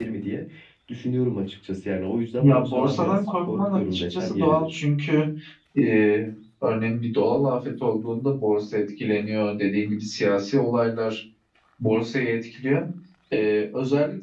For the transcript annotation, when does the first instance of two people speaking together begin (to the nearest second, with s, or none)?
2 s